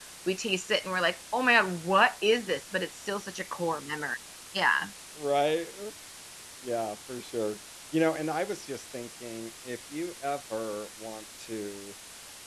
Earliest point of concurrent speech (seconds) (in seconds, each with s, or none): none